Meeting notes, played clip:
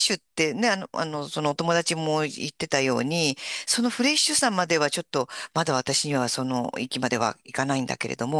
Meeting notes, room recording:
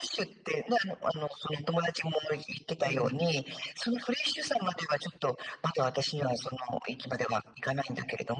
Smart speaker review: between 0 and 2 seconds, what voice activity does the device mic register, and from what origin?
echo only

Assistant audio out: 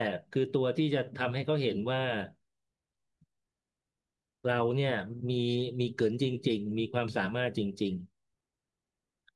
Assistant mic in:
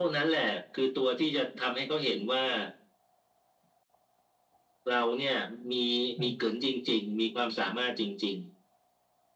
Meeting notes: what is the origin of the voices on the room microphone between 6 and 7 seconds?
both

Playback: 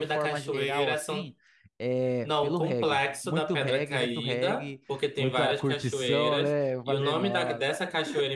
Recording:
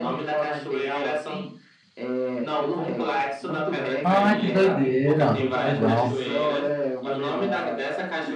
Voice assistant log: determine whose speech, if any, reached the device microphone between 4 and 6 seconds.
both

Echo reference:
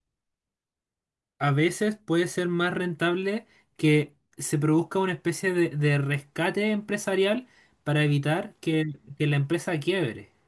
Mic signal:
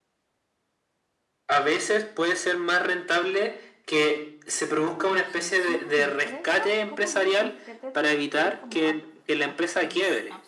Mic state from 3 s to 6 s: both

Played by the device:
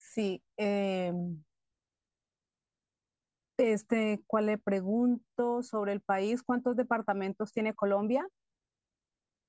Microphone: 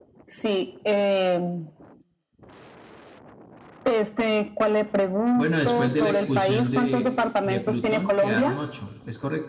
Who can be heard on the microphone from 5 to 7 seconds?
both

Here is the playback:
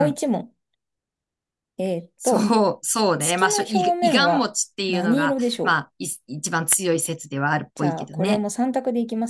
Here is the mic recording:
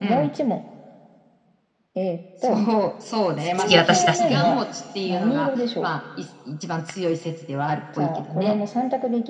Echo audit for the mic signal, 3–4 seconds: both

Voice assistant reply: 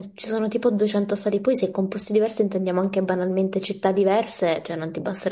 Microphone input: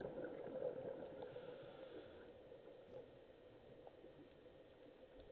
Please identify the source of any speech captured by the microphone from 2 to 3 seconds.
neither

